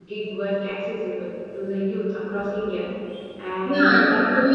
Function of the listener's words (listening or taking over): taking over